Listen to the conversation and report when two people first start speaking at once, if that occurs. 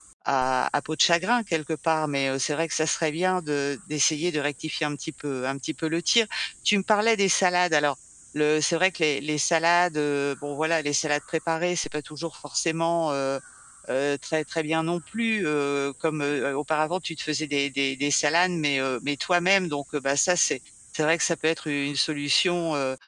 none

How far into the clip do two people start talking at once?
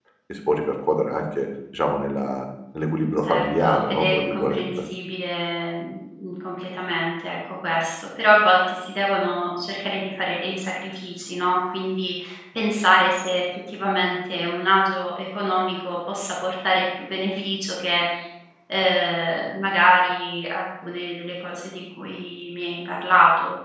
3.3 s

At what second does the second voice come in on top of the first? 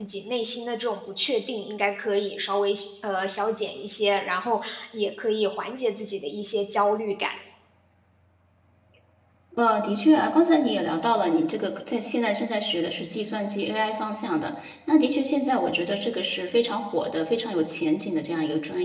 none

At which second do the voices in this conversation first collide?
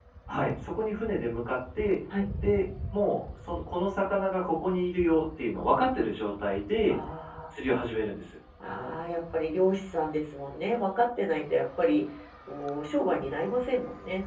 none

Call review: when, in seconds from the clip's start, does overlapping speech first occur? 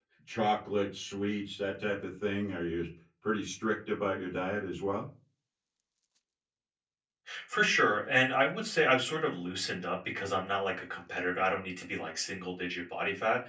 none

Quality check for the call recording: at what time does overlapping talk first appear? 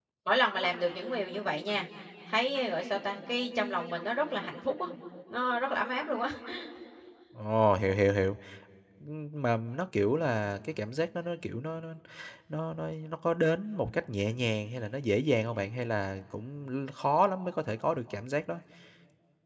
none

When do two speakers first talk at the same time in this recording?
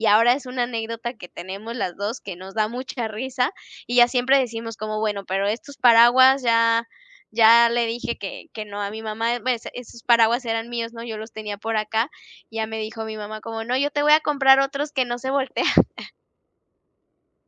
none

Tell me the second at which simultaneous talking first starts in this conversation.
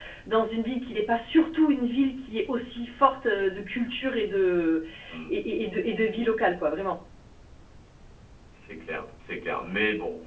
none

